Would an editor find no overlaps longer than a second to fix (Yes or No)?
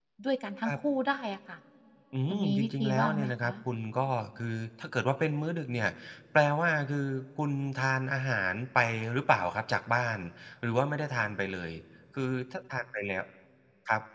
No